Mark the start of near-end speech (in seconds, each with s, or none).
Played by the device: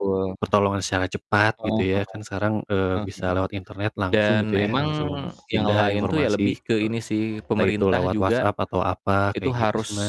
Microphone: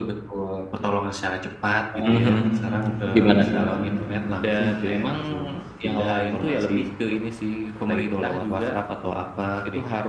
2.0 s